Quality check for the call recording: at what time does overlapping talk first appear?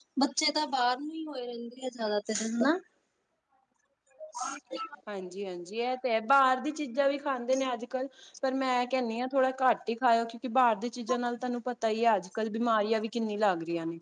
none

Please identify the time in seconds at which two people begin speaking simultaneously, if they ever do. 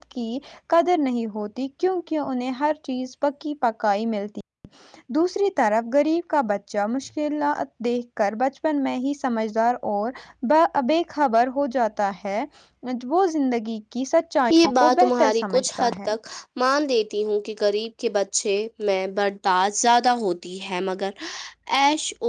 14.5 s

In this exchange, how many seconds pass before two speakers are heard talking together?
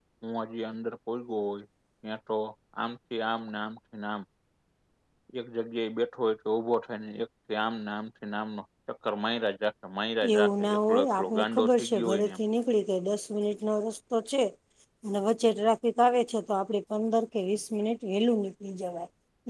10.2 s

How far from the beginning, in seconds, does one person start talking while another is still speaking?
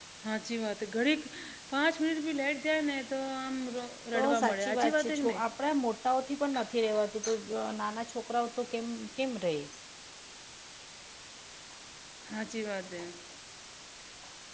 4.2 s

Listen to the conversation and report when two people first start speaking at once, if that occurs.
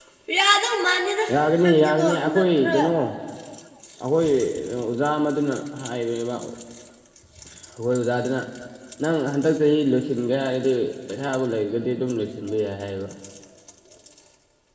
1.6 s

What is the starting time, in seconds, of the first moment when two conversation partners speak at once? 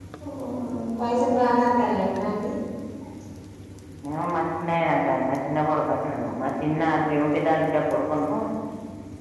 none

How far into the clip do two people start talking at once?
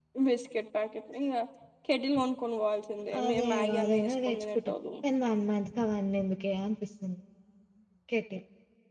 3.1 s

